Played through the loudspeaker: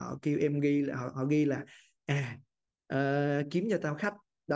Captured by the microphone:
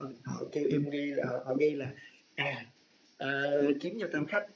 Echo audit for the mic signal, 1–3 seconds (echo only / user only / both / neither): echo only